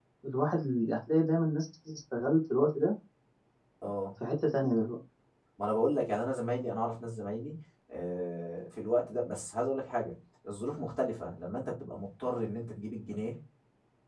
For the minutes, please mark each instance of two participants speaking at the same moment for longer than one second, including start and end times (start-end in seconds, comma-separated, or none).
none